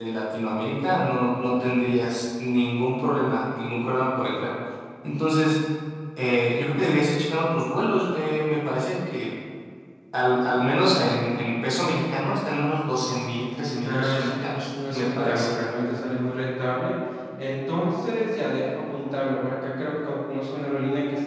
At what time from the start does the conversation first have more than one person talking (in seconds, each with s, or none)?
13.8 s